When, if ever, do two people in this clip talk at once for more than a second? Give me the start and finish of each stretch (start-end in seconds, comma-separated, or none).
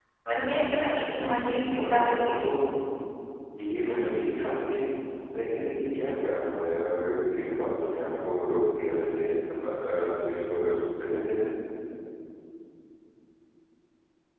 1.1-2.5